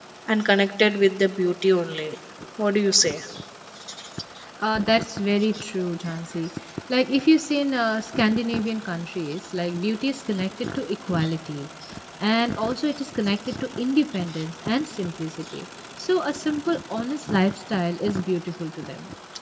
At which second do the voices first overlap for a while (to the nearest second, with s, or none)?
none